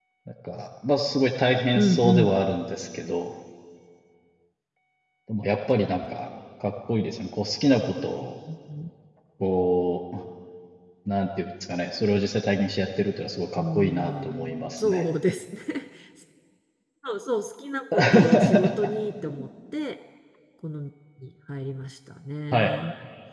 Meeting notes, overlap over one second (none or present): present